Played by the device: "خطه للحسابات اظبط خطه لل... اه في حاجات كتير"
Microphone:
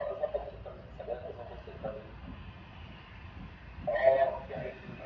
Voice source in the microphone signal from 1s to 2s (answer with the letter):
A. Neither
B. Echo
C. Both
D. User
B